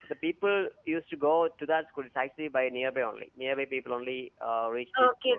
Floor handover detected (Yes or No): Yes